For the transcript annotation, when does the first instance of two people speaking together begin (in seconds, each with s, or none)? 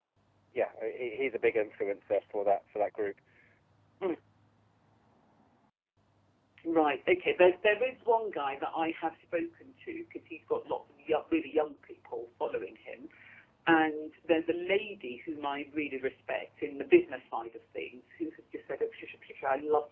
none